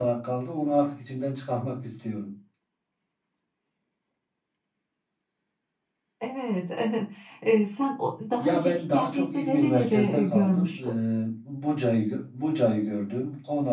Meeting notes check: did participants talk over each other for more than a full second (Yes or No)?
Yes